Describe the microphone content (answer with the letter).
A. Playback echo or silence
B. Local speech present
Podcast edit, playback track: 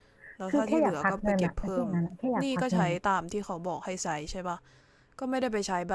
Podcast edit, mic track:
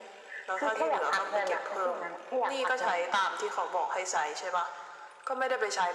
A